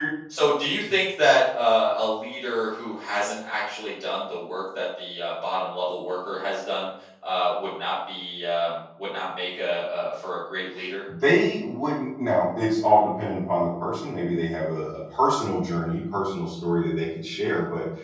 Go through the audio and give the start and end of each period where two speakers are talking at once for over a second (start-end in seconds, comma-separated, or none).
none